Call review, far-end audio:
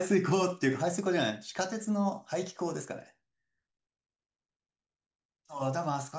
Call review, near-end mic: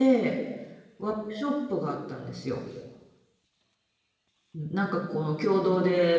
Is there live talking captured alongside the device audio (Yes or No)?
Yes